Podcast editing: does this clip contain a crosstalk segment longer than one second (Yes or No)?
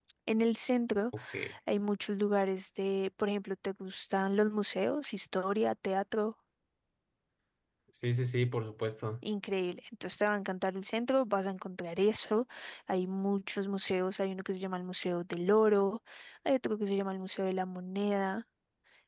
No